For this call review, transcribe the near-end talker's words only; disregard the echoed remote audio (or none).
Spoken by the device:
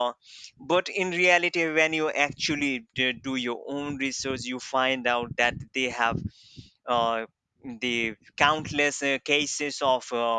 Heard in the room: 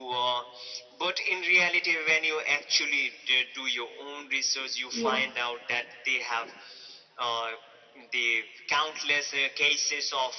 Yeah.